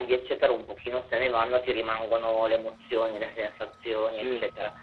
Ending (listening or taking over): listening